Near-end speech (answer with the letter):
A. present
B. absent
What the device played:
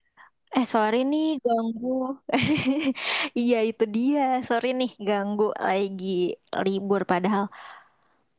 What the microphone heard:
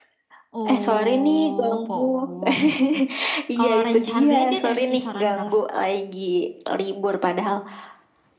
A